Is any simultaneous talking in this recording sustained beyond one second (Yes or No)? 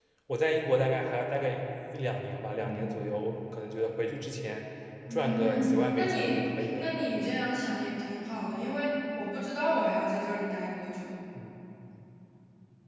Yes